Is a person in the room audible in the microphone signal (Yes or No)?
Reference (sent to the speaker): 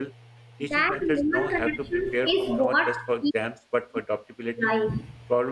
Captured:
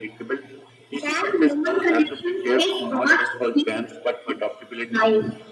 No